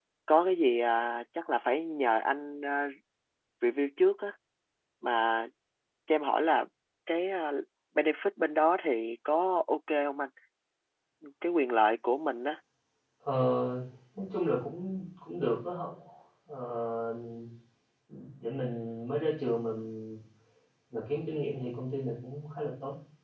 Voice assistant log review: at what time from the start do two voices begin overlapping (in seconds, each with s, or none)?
none